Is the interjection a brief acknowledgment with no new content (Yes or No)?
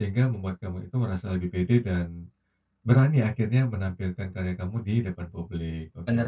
No